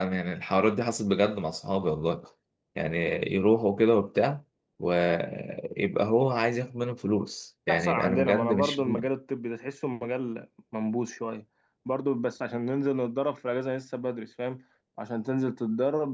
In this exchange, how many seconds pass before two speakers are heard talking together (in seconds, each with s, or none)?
7.7 s